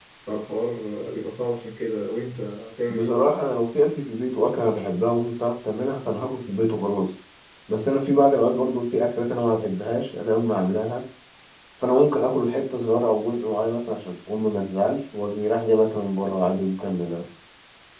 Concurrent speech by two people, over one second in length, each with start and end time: none

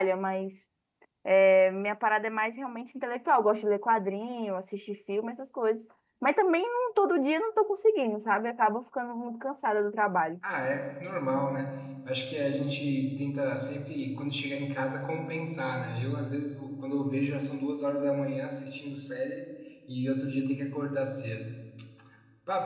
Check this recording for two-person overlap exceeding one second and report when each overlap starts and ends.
none

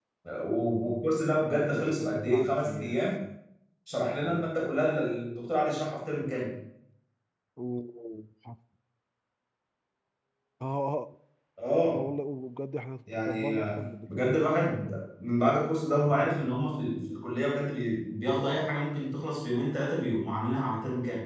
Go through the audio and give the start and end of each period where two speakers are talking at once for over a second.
1.7-3.0, 13.1-14.9

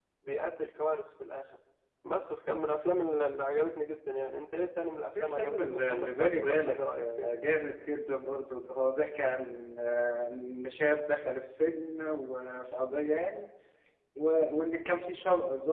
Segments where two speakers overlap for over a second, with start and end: 5.2-7.4

